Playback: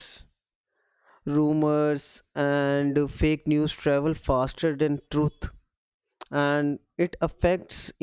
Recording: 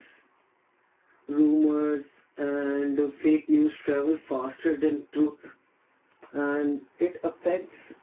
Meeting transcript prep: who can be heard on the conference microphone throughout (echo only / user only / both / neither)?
echo only